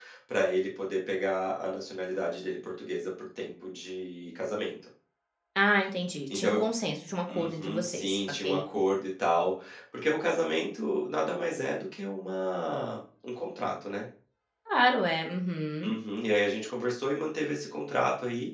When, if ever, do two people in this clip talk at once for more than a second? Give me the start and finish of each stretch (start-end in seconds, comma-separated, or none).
7.3-8.6